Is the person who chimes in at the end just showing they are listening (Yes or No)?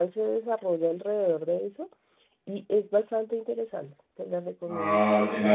No